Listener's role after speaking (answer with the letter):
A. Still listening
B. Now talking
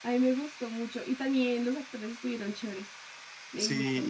B